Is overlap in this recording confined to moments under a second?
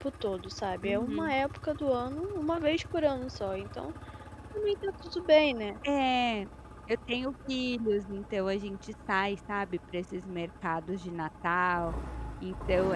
Yes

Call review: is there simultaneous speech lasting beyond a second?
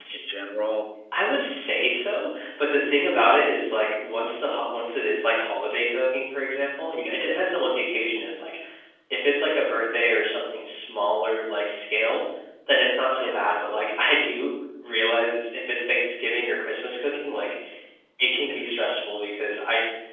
No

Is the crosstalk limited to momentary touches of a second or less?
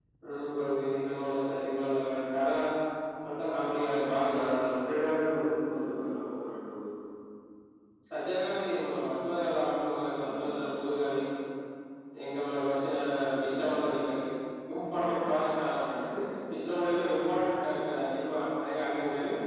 Yes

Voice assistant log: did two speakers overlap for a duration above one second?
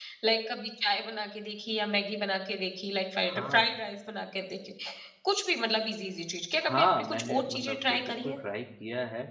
Yes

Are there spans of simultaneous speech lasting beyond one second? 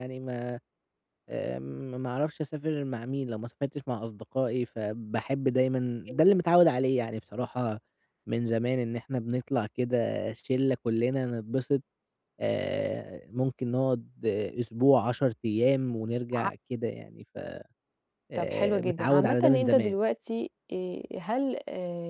Yes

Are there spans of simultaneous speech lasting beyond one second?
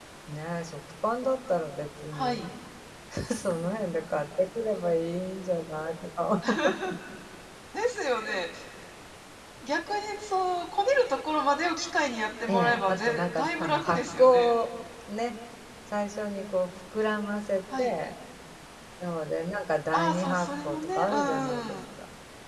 Yes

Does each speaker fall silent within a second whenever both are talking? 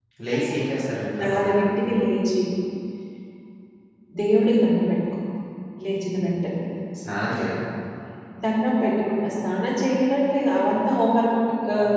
Yes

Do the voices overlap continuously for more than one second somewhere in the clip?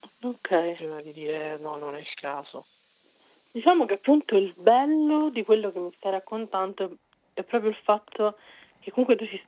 No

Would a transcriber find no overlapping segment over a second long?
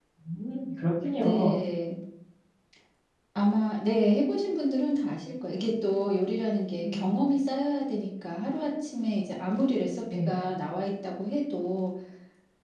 Yes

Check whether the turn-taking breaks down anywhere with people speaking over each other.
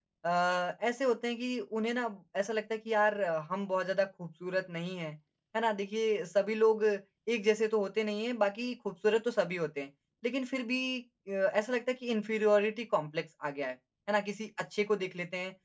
No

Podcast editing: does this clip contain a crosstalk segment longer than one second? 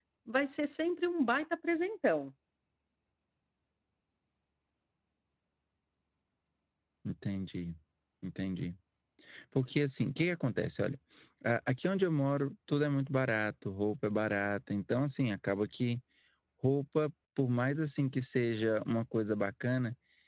No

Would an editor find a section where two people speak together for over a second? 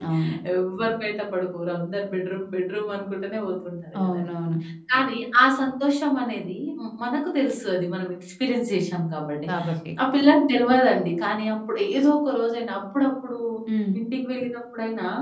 No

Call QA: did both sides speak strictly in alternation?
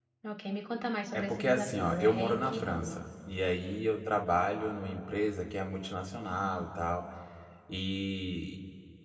No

